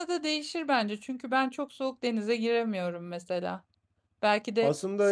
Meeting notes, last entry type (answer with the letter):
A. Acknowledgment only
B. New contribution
A